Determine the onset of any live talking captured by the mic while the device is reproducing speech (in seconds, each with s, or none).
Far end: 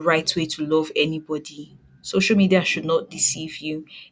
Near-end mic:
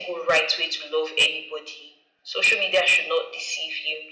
none